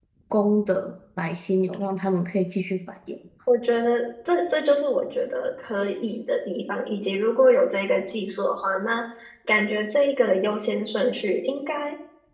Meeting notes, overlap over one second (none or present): none